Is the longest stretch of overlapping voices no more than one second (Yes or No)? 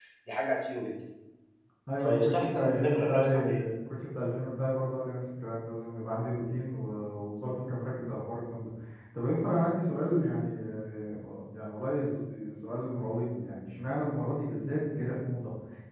No